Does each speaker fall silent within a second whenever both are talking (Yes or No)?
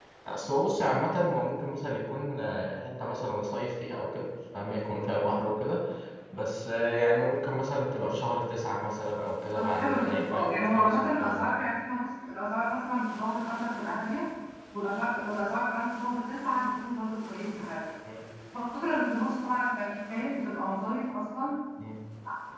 No